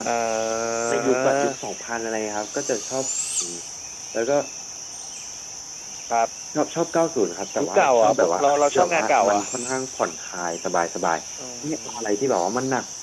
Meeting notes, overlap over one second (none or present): present